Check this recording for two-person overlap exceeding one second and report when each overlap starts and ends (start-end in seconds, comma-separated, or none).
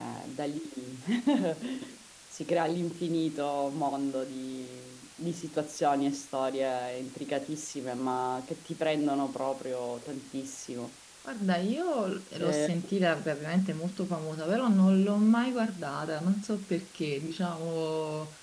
none